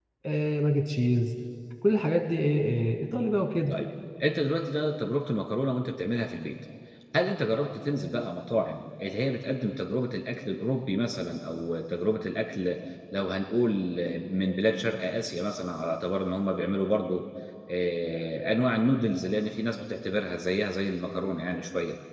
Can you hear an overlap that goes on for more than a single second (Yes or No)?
No